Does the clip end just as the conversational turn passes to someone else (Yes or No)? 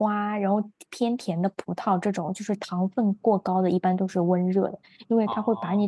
No